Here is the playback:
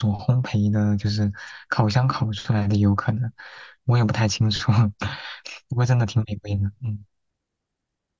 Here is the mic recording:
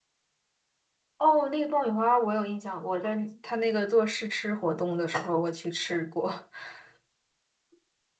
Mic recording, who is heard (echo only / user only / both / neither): user only